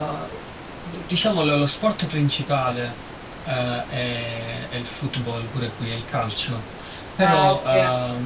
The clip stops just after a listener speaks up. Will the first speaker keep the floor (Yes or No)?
Yes